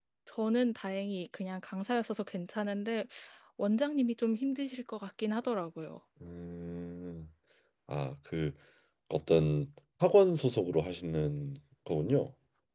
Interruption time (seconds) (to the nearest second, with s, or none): none